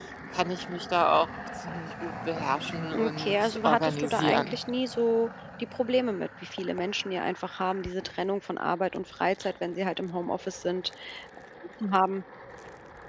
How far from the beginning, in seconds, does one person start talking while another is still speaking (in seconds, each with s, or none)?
2.9 s